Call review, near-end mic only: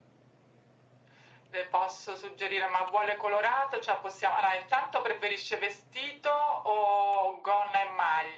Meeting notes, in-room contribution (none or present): none